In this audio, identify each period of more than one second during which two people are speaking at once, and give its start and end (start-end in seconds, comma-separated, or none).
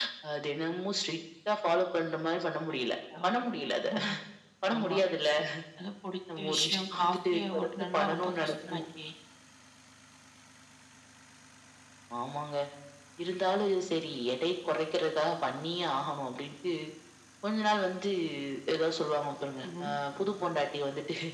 6.4-8.8